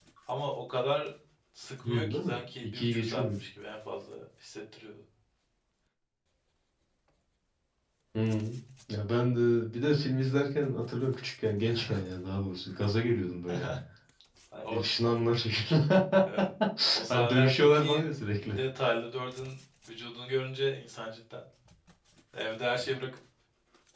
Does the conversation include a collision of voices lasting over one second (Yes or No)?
Yes